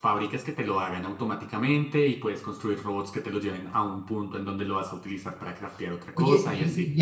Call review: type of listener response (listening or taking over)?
taking over